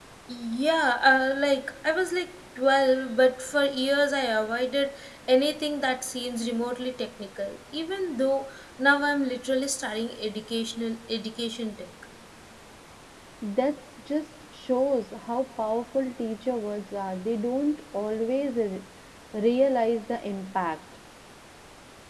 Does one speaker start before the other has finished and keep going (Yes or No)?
No